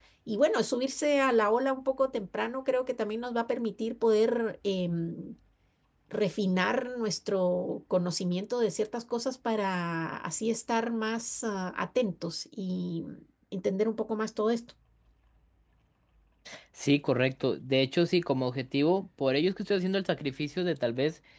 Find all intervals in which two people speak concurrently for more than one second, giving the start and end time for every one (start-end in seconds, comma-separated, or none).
none